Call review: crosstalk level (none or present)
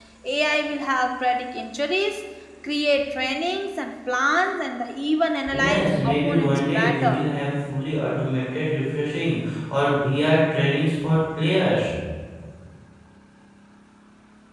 present